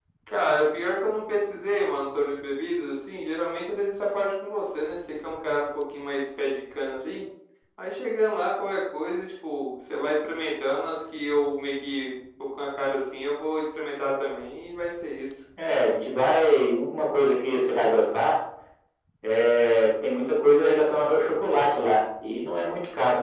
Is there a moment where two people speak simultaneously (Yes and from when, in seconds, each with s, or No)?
No